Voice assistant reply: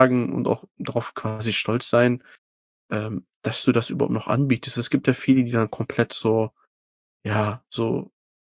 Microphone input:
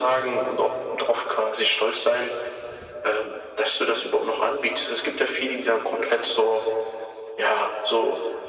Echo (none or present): present